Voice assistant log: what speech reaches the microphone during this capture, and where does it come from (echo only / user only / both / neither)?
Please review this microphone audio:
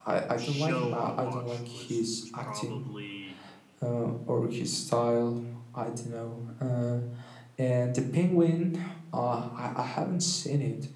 both